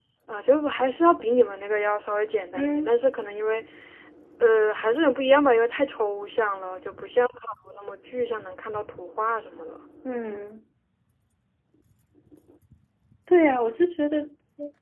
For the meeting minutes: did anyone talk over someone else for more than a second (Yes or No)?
No